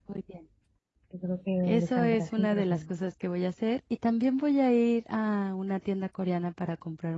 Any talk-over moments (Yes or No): Yes